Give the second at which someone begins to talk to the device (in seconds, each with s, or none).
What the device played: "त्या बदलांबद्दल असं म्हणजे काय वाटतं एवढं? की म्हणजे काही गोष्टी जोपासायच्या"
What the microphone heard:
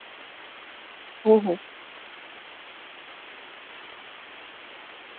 1.2 s